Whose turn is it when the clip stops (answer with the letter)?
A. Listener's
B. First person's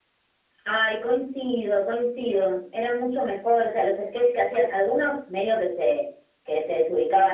B